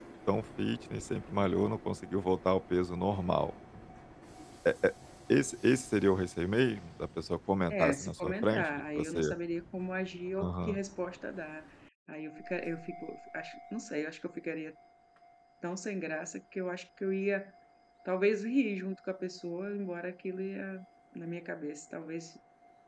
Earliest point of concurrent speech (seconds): 7.7 s

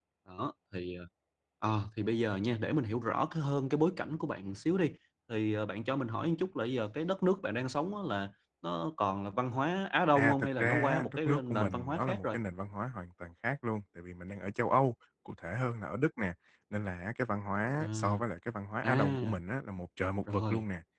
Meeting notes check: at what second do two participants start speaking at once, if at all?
10.2 s

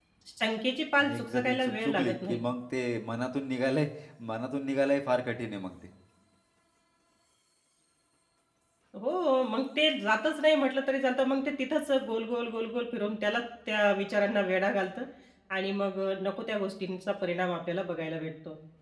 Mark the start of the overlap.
1.0 s

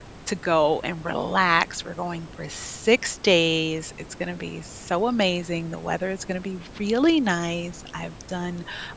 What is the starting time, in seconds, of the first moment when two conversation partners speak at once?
none

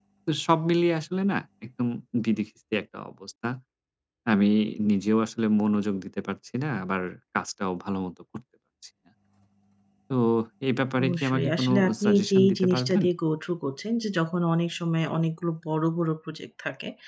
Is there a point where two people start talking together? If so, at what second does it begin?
11.0 s

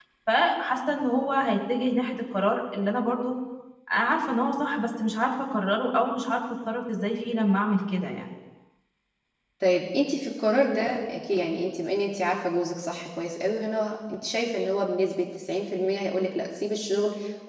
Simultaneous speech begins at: none

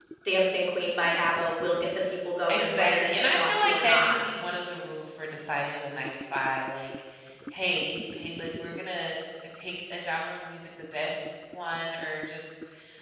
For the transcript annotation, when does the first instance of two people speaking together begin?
2.5 s

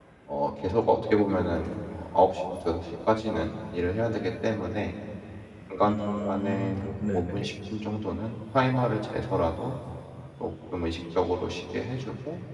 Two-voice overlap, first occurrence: 5.8 s

